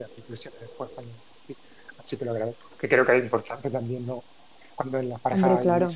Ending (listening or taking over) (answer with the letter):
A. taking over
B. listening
B